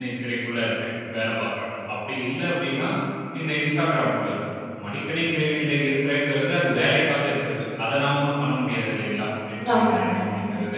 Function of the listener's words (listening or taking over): listening